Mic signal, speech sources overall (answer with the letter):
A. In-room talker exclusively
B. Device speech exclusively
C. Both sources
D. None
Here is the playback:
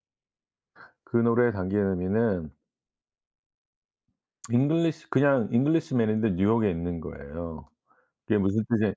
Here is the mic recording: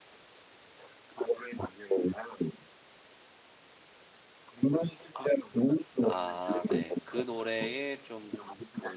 C